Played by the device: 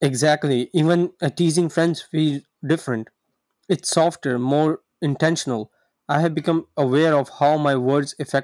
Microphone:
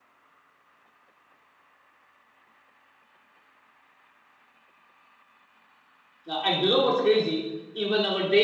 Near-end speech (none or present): present